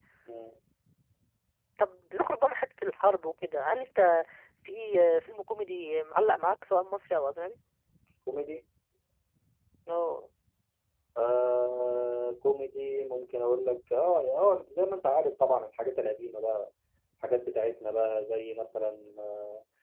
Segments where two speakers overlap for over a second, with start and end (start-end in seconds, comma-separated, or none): none